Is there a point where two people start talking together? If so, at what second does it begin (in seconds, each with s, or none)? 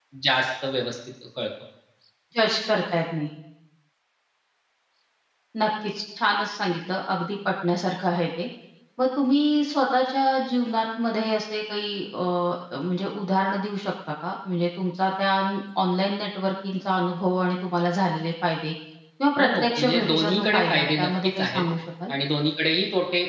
19.4 s